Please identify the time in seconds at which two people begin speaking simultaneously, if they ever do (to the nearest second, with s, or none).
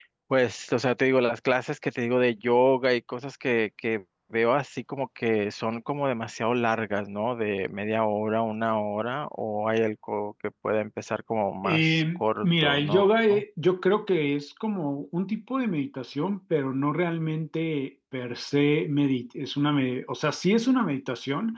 12 s